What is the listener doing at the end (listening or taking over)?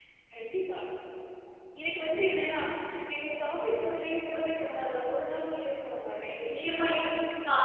taking over